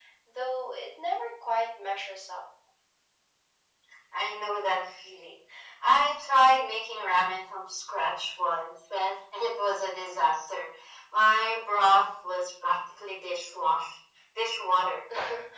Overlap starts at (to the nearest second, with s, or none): none